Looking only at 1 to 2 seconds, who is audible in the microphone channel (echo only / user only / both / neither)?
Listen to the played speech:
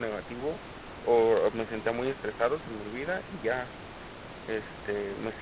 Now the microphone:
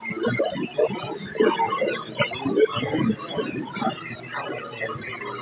both